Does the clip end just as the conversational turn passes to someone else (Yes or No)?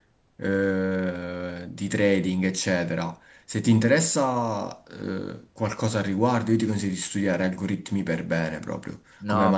Yes